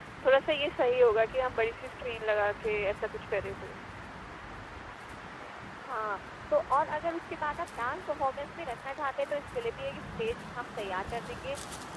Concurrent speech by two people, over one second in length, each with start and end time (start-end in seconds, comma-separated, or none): none